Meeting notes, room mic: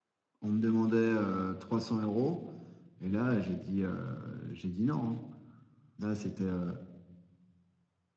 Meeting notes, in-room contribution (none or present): present